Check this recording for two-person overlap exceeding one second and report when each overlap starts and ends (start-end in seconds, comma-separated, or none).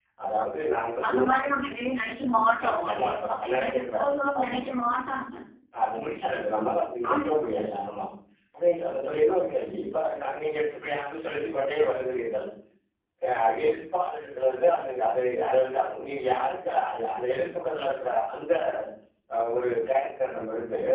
2.6-4.6